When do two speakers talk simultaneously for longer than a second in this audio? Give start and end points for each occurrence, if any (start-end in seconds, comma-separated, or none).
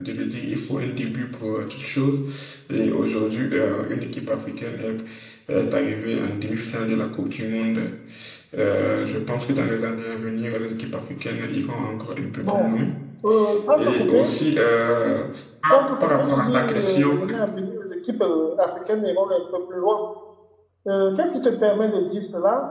15.7-17.1